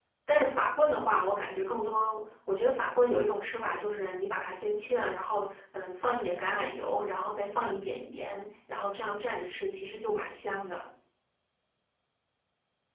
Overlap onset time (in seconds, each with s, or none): none